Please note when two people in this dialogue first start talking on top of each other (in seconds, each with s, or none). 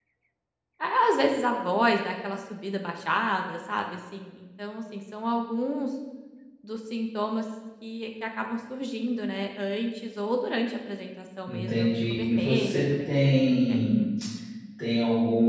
11.5 s